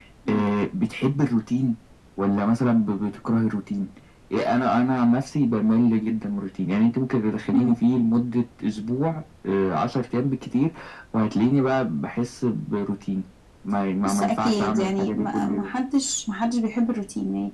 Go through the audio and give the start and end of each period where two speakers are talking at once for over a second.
14.1-15.7

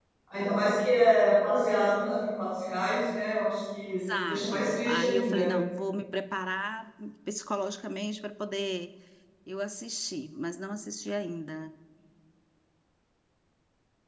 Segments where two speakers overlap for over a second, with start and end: 4.2-5.5

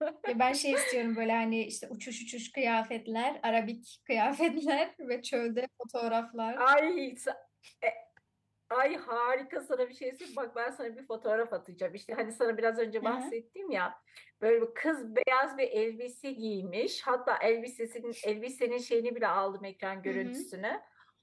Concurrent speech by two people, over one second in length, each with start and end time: none

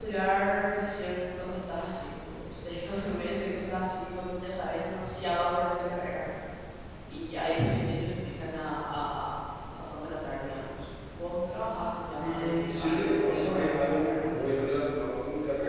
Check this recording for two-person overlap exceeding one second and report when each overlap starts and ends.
12.2-14.3

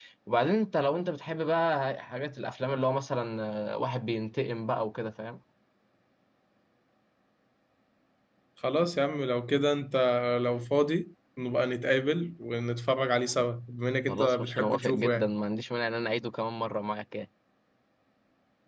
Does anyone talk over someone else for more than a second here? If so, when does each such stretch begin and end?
14.1-15.3

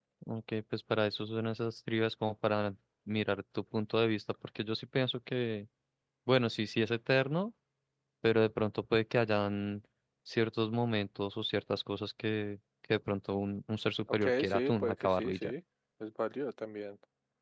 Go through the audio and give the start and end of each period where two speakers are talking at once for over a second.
14.2-15.5

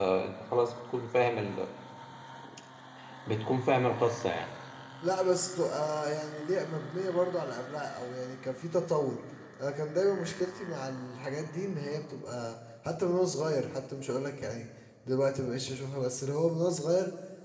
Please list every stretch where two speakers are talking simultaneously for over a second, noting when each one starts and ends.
none

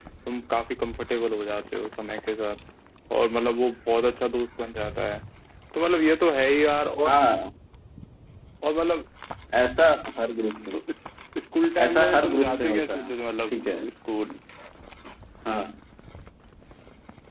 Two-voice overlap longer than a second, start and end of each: 11.8-13.1

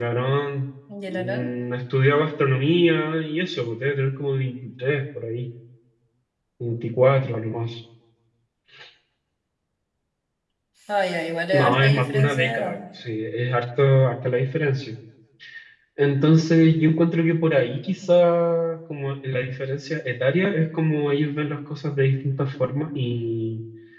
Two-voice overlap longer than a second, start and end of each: 11.5-12.8

